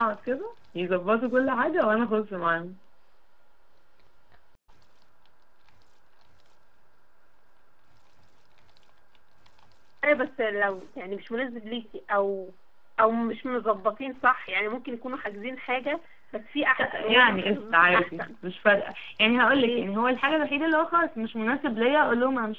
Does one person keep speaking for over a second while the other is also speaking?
Yes, from 16.8 s

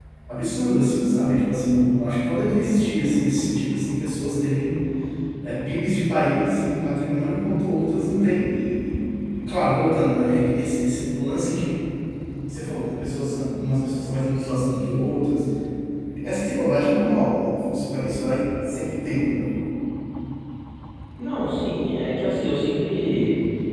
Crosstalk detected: No

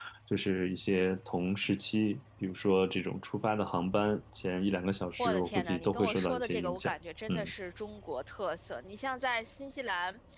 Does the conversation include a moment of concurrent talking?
Yes, from 5.2 s

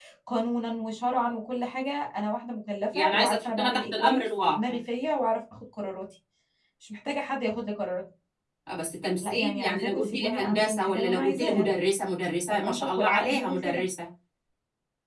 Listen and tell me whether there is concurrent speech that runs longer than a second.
Yes, from 2.9 s

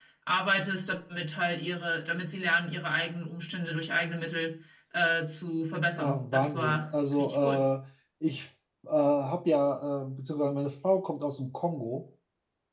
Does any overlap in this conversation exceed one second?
Yes, from 6.0 s

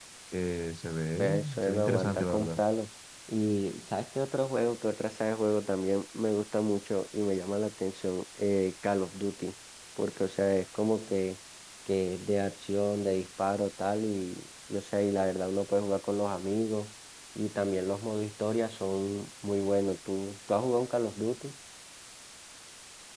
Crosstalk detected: Yes, from 1.2 s

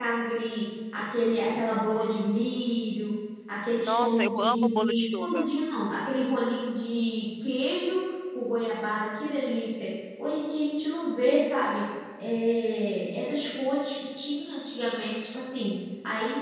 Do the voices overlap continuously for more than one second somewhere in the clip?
Yes, from 3.9 s

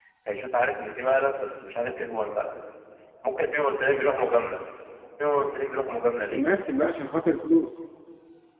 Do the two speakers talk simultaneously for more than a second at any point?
No

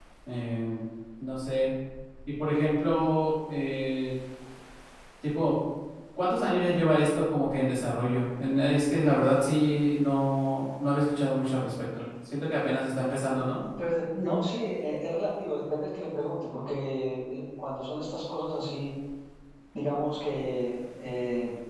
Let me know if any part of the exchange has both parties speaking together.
No

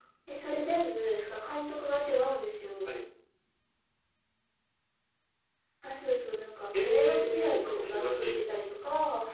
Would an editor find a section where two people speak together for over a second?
Yes, from 6.7 s

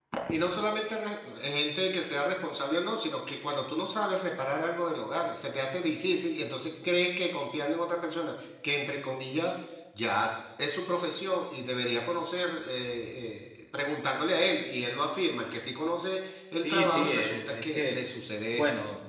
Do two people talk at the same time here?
Yes, from 16.6 s

